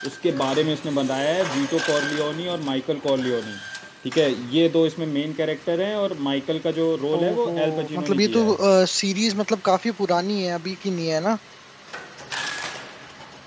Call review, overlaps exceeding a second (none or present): present